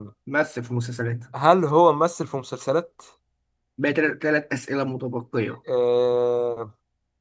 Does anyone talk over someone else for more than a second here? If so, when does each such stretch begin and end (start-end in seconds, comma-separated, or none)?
none